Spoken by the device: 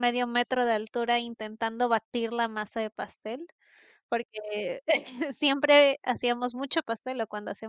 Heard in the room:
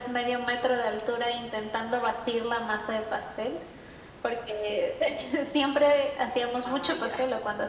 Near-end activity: present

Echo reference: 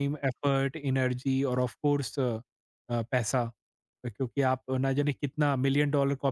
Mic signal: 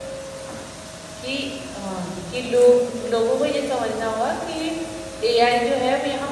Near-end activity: present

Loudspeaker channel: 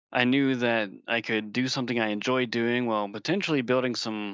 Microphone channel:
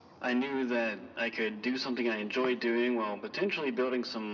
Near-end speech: none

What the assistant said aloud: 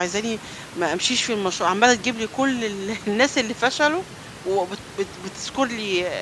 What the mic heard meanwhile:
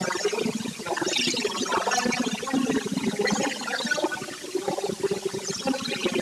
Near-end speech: none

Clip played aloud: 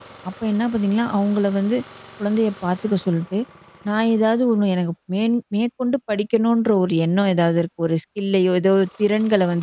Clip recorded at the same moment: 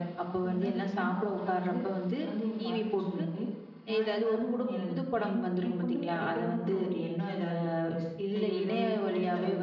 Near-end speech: present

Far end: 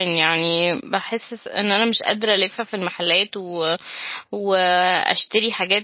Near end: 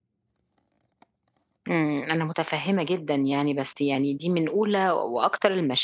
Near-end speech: present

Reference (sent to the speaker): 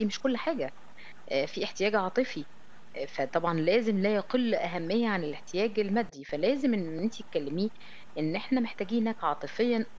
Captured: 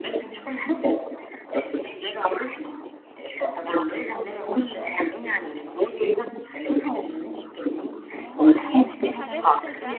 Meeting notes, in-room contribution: present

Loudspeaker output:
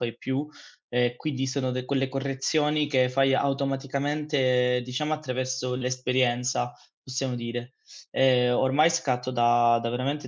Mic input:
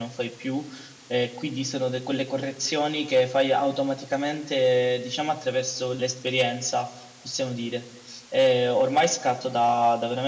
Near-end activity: none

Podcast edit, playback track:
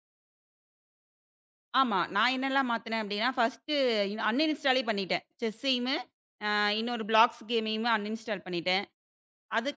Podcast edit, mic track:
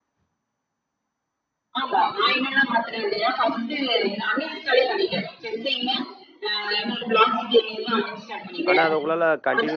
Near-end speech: present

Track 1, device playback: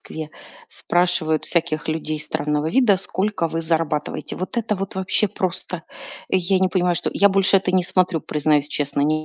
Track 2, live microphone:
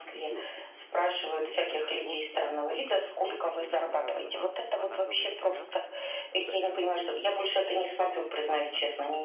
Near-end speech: present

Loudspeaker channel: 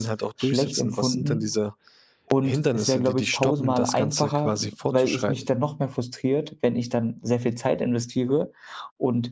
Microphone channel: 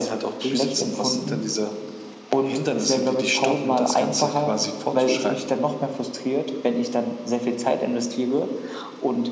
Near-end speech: none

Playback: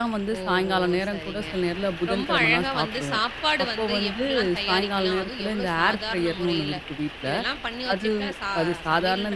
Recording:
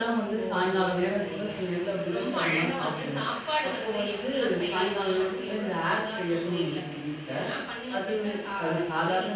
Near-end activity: none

